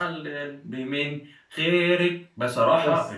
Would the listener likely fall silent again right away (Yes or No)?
Yes